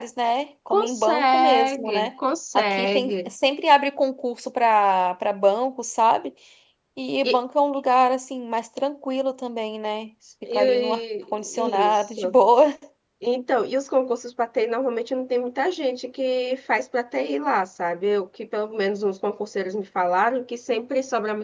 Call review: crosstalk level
present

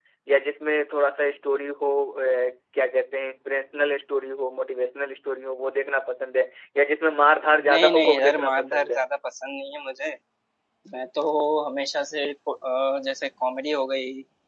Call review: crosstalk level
present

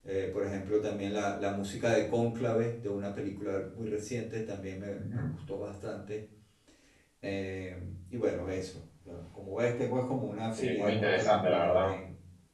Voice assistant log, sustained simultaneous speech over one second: present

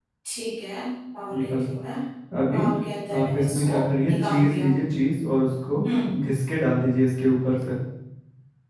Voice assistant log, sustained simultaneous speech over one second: present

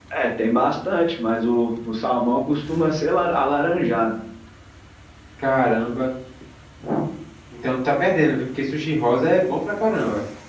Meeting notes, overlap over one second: none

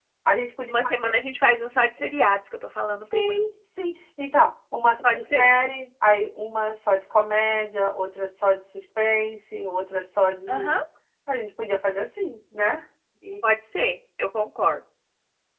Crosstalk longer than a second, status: none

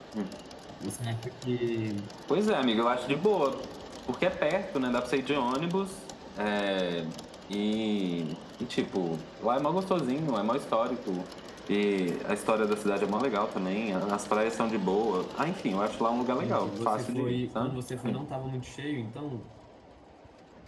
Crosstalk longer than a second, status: present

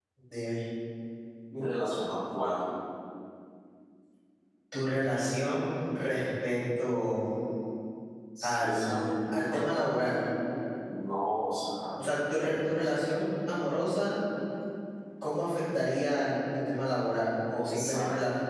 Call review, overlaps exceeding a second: present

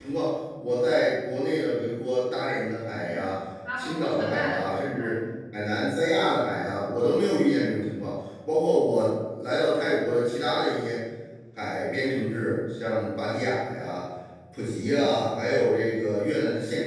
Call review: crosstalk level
present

